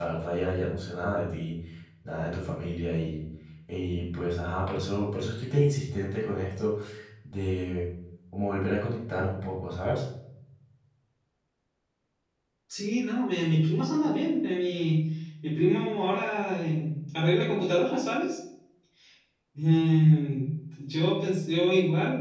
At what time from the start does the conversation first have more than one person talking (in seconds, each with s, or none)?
none